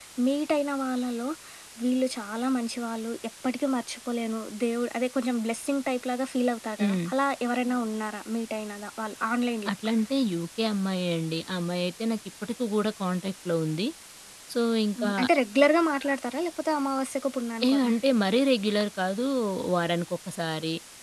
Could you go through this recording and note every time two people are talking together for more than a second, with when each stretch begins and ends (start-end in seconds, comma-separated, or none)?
none